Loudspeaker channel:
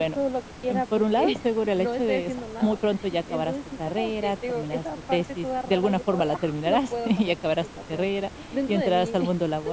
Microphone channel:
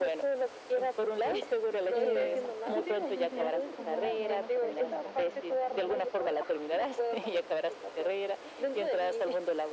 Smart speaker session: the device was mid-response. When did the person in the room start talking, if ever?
1.9 s

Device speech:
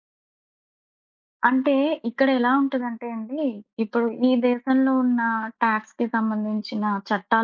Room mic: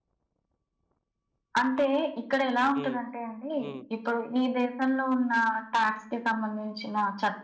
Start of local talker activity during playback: 2.8 s

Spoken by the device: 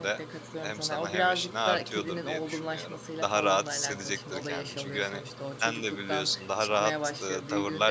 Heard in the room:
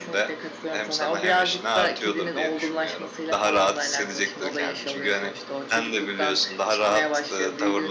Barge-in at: none

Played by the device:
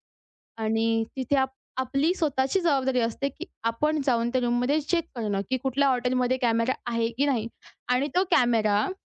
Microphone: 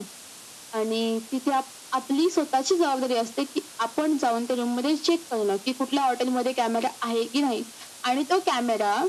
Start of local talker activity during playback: none

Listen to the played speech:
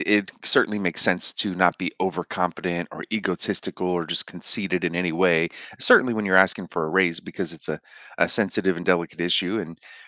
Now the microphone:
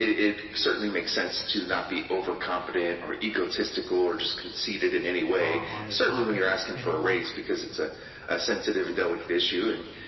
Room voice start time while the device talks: 5.4 s

